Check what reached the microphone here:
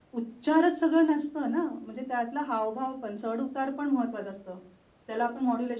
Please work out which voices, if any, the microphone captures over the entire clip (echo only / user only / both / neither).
echo only